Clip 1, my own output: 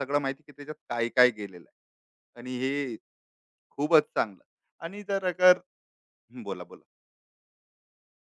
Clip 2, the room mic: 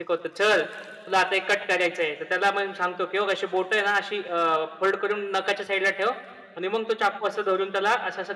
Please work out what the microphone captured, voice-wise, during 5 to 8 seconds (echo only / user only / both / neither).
user only